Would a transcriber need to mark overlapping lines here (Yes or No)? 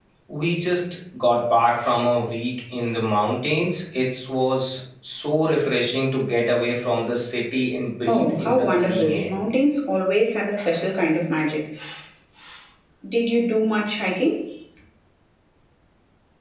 Yes